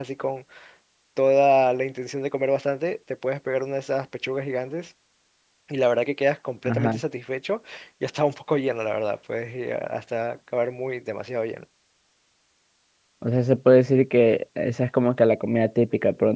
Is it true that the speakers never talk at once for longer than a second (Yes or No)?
Yes